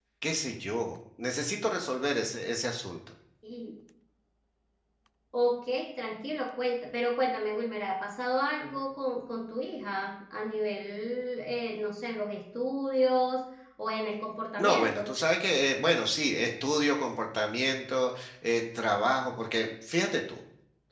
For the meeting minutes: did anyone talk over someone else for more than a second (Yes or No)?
No